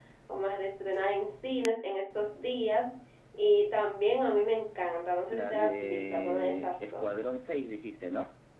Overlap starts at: 5 s

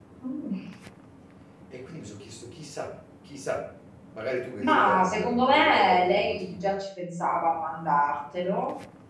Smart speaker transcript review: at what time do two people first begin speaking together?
5 s

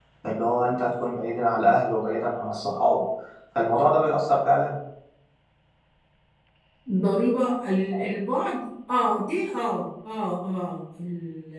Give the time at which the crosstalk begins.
none

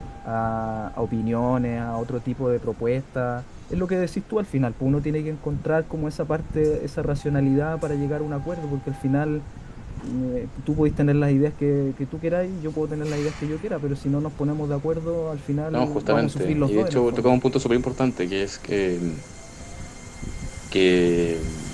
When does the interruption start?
16 s

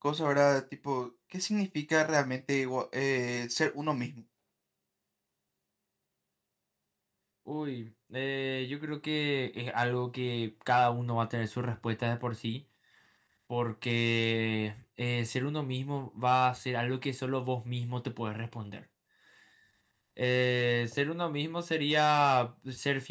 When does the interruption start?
none

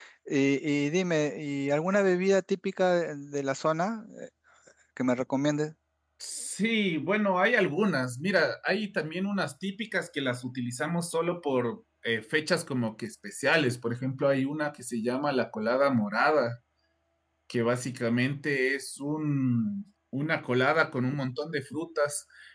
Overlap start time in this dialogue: none

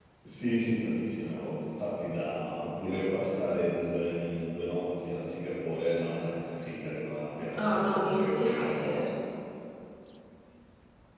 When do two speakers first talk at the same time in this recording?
8 s

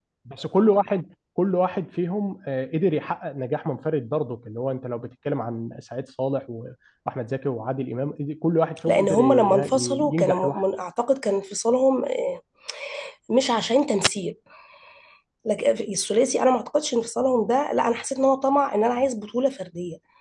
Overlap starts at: 9 s

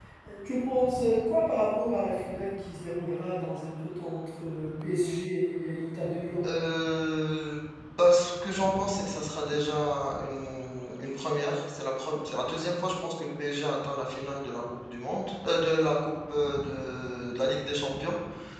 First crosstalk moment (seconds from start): none

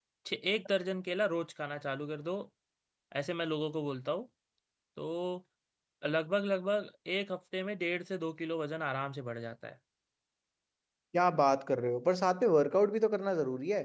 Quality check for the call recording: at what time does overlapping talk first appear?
none

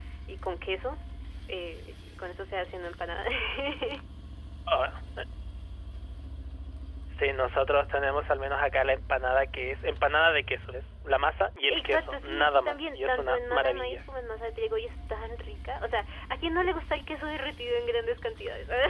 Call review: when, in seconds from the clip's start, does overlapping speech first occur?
12 s

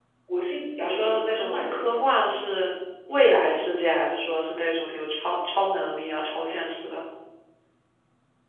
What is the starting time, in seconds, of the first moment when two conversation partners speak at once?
1 s

